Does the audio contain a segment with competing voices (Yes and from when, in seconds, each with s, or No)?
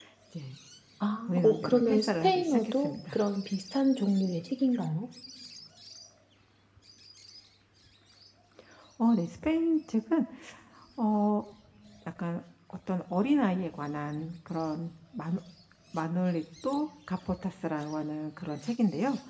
Yes, from 1.3 s